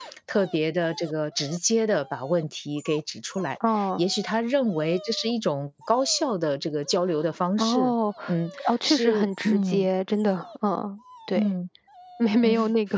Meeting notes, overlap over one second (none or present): present